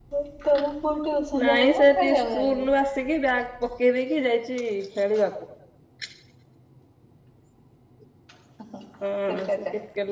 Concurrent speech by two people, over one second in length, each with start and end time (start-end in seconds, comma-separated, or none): 1.4-2.7